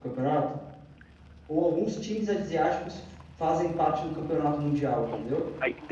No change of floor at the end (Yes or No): No